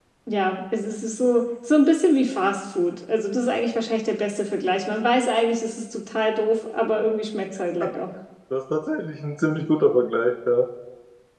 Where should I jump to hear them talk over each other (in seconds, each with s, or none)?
none